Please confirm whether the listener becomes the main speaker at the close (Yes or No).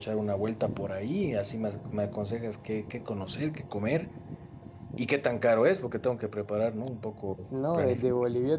Yes